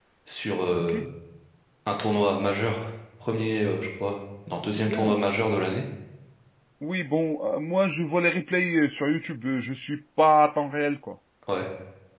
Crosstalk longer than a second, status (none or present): none